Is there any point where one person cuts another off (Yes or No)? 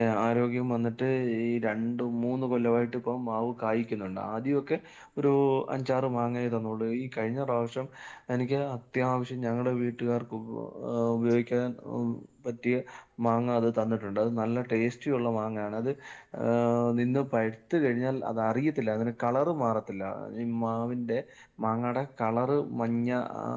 No